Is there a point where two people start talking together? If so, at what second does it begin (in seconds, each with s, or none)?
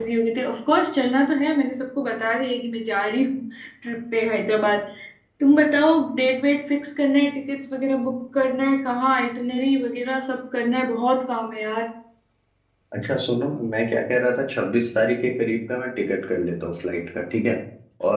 none